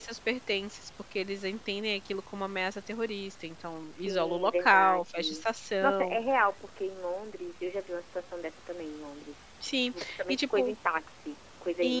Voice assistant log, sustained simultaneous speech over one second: present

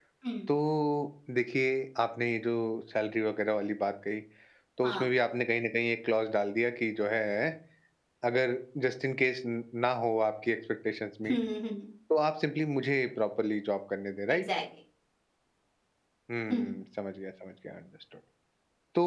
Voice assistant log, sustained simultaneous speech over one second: none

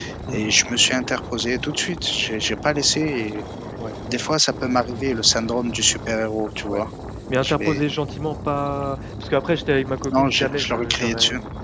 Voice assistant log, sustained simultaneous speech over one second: present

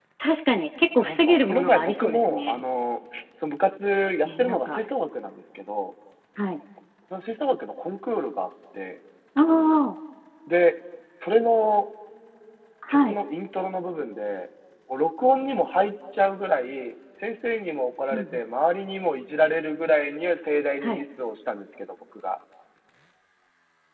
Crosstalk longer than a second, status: present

